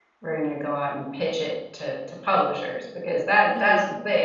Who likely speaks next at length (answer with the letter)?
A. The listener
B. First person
B